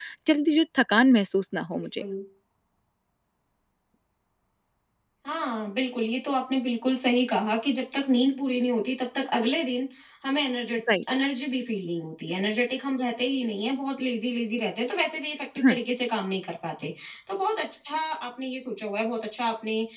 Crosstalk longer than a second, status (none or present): none